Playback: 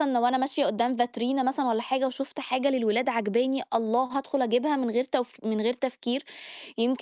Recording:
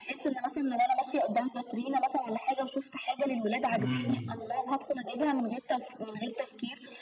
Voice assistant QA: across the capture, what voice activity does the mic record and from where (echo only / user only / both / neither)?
both